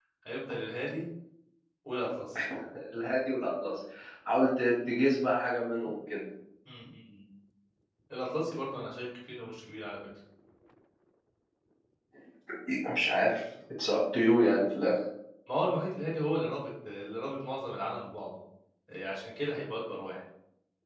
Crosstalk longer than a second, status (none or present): none